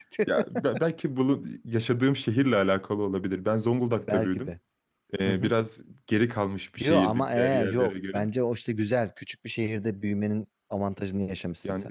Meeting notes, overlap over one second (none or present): present